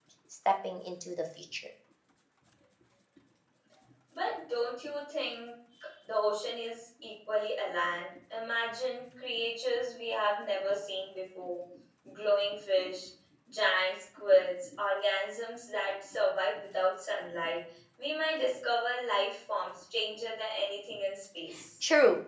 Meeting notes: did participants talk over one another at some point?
No

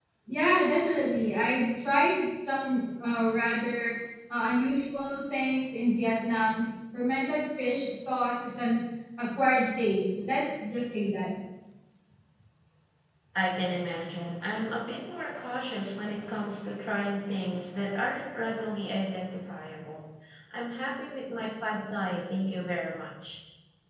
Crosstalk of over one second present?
No

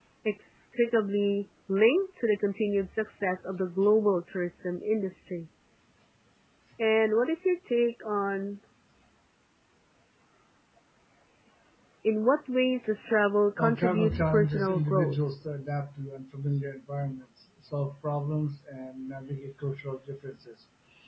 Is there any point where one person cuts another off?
Yes, from 13.6 s

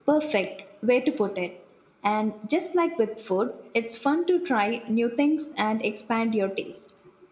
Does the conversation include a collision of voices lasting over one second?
No

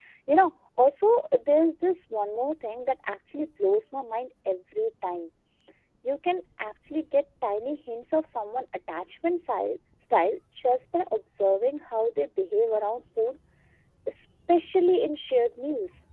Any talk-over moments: No

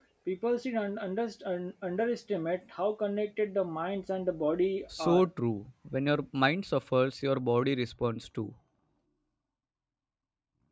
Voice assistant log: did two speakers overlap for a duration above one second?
No

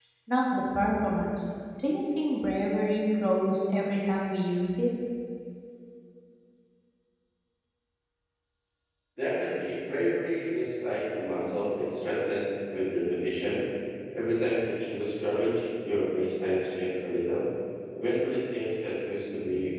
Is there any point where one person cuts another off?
No

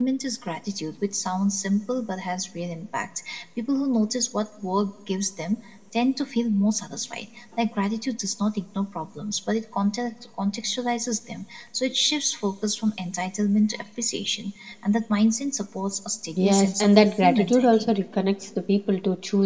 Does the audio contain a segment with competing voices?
Yes, from 16.4 s

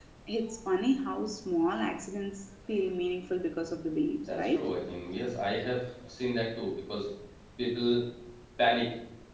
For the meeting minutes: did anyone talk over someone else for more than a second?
No

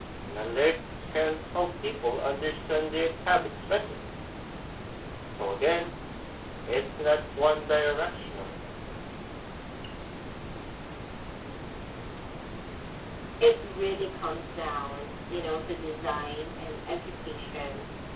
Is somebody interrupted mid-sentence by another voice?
No

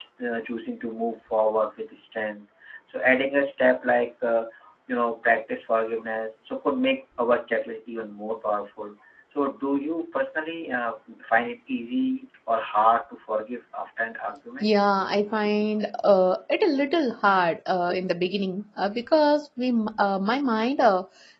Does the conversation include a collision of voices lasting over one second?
No

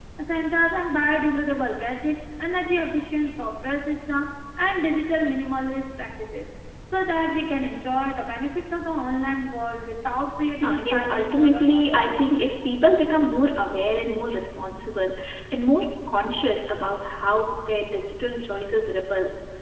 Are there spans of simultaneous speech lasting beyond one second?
Yes, from 10.6 s

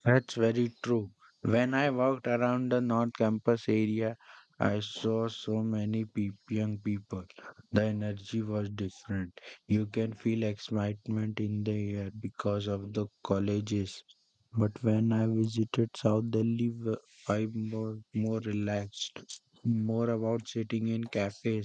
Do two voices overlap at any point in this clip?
No

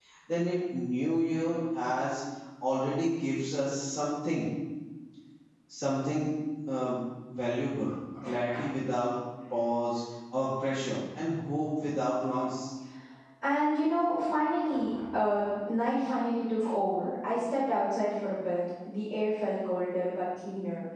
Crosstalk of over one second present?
No

